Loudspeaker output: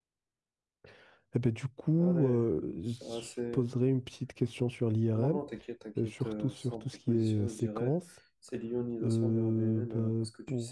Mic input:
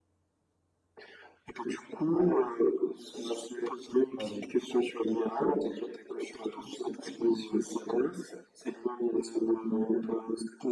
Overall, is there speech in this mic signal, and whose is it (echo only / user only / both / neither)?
both